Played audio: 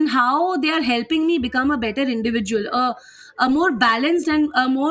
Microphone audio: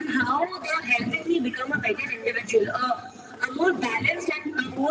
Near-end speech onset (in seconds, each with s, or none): none